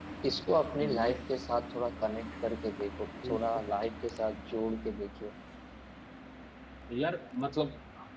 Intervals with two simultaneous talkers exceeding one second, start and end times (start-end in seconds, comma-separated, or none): none